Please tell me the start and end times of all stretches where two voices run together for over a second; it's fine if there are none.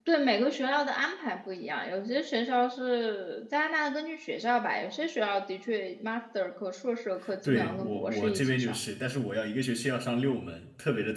7.5-8.8

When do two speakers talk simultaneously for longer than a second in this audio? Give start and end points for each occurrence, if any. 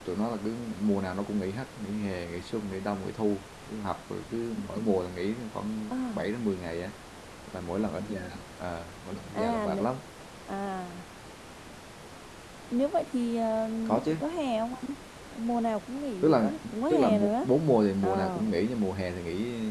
16.2-17.5

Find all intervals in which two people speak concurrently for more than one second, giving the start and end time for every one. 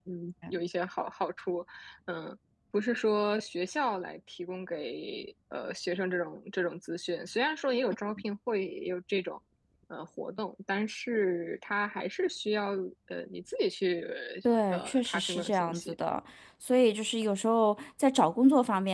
14.7-15.9

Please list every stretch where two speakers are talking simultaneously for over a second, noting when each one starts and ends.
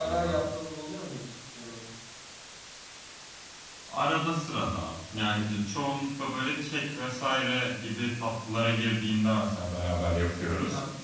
none

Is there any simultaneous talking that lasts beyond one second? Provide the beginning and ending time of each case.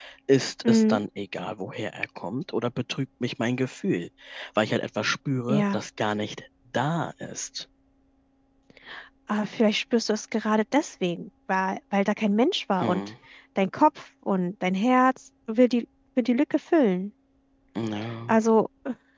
none

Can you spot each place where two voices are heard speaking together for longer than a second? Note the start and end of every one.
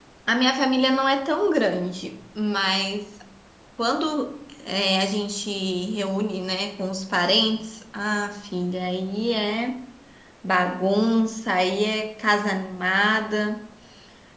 none

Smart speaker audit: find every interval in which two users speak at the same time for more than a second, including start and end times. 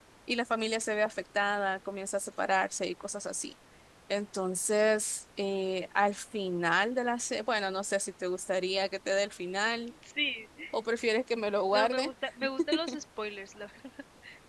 none

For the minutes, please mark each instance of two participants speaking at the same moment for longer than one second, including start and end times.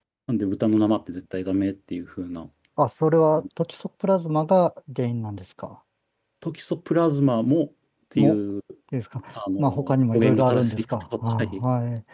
10.1-11.6

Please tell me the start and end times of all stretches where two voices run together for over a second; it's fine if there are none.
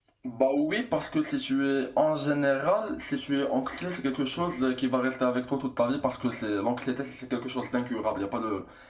none

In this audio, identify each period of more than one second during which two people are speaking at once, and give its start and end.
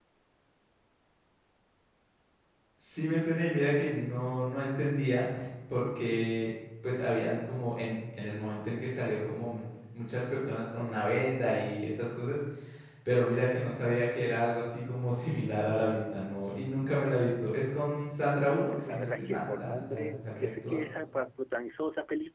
18.7-20.8

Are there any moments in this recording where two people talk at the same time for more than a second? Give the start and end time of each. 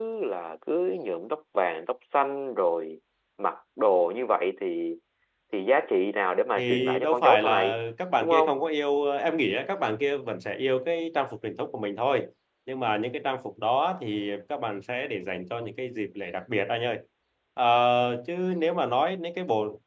6.6-7.8

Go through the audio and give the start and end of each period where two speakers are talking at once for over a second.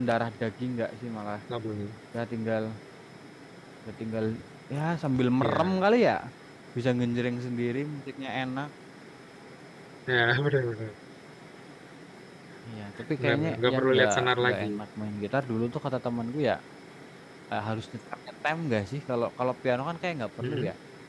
13.2-14.7

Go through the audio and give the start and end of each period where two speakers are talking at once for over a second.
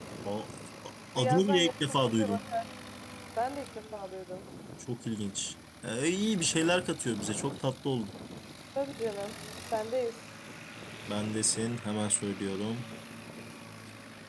1.2-2.4

